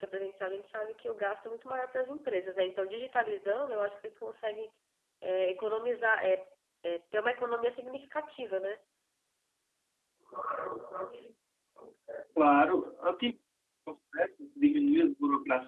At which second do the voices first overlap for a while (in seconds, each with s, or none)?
none